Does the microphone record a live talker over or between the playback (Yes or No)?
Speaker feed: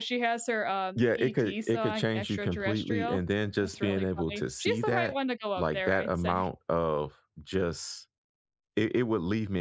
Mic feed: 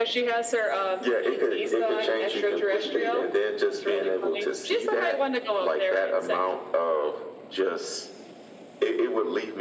No